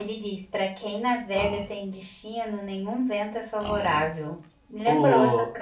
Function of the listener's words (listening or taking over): taking over